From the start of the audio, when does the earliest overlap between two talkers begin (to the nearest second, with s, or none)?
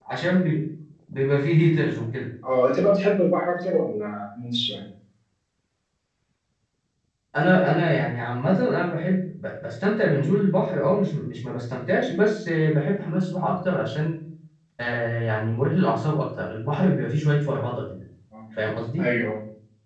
none